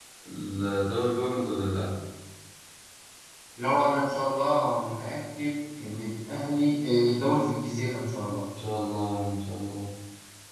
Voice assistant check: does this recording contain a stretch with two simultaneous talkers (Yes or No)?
No